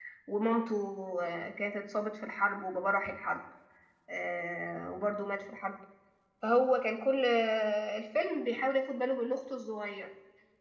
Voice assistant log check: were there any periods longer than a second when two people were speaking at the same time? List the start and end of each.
none

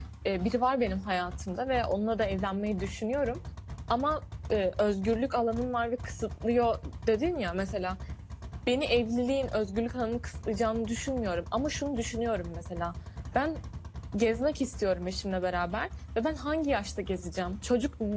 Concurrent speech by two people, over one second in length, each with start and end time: none

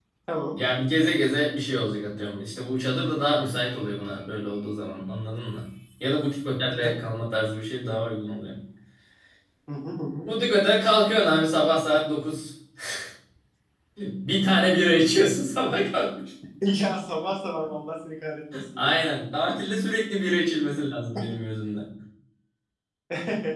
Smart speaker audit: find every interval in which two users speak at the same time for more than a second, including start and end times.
none

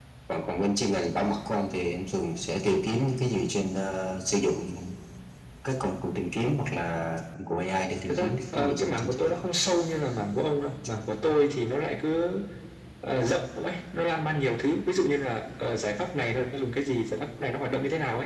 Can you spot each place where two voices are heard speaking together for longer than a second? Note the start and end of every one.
8.1-9.3

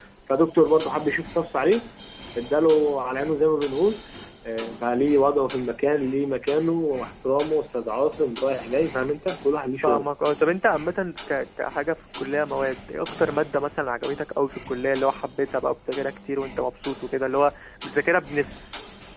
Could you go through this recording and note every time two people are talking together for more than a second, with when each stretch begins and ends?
none

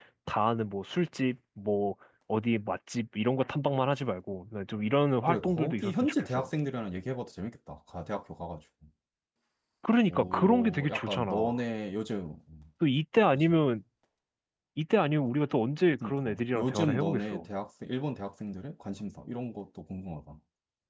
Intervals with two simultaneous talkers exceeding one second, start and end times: 5.3-6.5, 10.1-11.6, 16.0-17.4

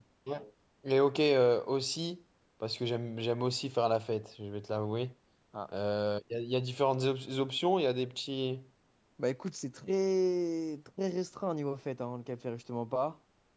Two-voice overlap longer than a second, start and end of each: none

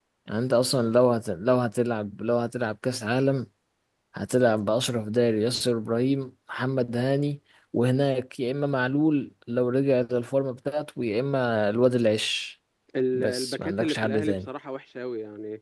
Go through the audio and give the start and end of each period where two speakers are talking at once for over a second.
13.1-14.5

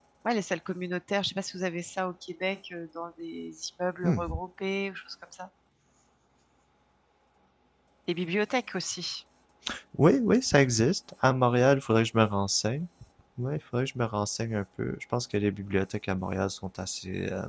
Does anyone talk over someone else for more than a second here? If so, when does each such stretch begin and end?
none

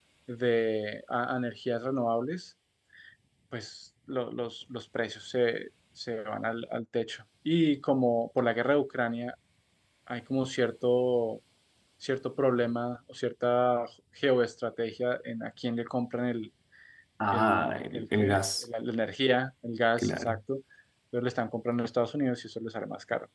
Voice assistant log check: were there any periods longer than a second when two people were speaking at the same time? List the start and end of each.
17.3-18.6

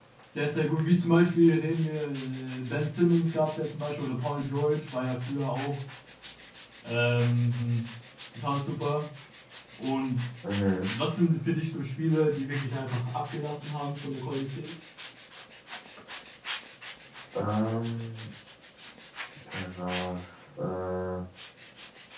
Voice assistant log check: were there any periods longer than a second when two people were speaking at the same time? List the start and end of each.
none

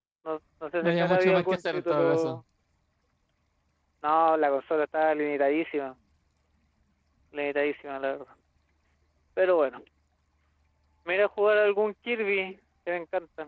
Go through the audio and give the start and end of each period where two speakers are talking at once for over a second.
0.8-2.4

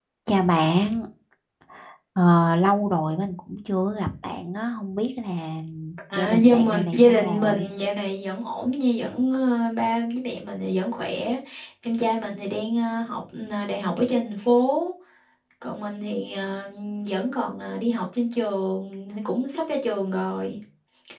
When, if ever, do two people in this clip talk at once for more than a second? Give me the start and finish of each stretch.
6.2-7.7

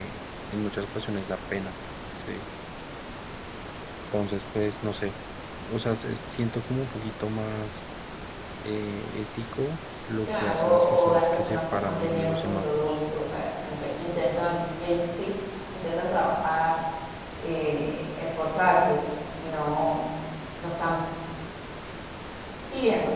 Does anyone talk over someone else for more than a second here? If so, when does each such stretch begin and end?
10.3-13.0

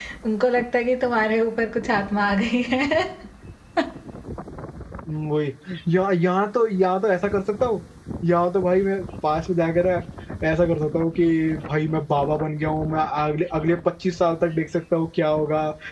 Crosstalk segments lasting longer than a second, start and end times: none

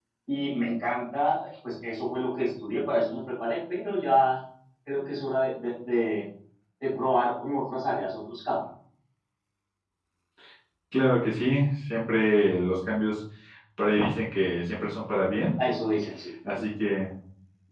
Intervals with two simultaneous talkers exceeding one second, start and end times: none

